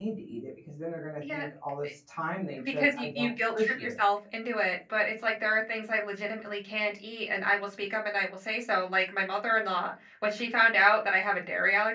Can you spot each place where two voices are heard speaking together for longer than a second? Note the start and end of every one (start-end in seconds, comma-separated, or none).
2.6-3.9